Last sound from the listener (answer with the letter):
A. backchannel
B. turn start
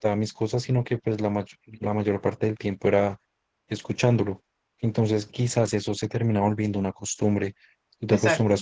A